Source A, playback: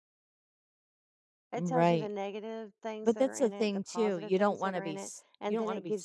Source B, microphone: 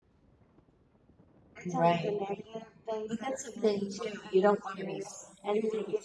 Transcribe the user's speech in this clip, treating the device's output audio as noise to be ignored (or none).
none